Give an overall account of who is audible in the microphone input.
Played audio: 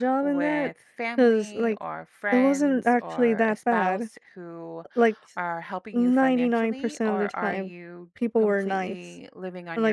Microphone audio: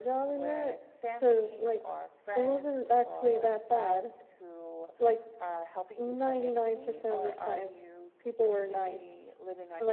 echo only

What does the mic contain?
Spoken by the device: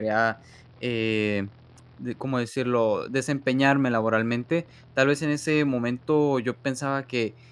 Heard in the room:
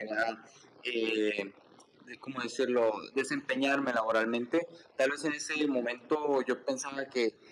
echo only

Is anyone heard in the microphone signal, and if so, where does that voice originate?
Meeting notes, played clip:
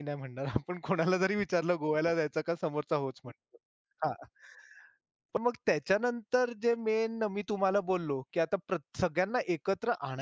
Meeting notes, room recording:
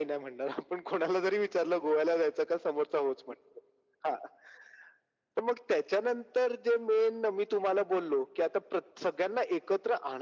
echo only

